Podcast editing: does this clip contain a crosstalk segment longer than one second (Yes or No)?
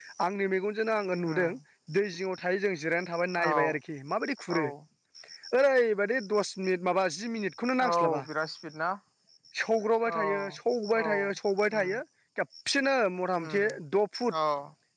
No